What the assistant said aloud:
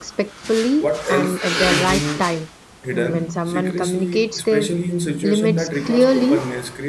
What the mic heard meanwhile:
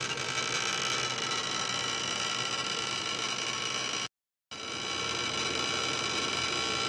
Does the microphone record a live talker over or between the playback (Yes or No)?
No